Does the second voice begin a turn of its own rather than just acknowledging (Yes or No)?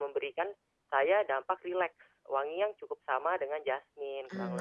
Yes